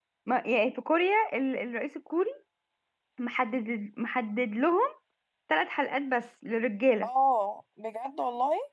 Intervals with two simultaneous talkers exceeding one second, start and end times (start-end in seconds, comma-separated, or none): none